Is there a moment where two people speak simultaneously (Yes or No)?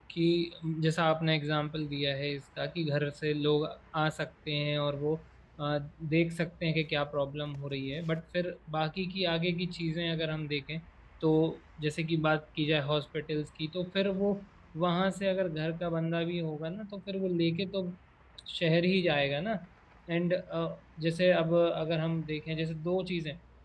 No